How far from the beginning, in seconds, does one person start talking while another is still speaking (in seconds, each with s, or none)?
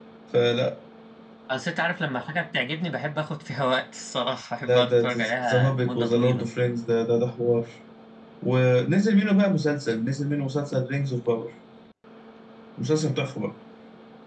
4.6 s